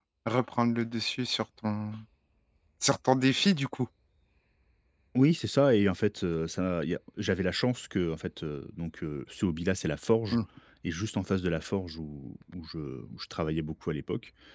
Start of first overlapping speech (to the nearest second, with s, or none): none